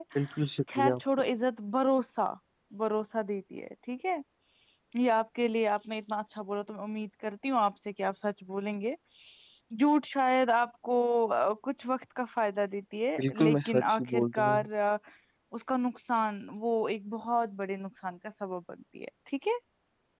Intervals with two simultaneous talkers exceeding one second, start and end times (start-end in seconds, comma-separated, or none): 13.2-14.6